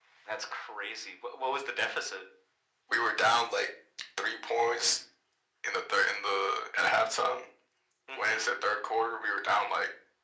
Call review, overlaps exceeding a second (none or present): none